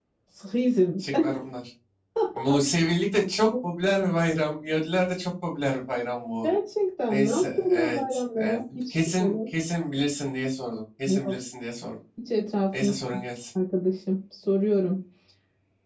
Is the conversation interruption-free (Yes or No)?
No